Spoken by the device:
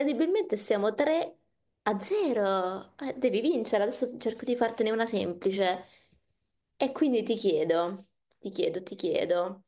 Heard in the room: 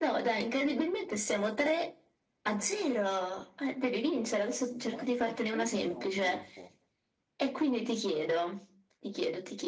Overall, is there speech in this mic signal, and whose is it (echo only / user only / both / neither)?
both